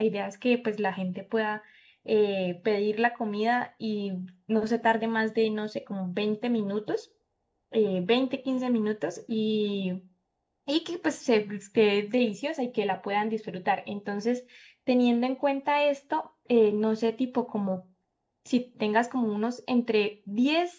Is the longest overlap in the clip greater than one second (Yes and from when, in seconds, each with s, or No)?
No